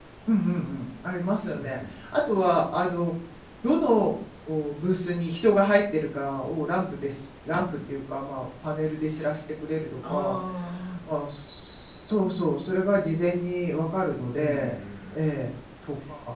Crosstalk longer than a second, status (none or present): none